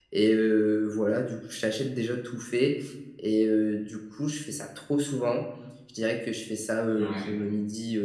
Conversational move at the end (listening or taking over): listening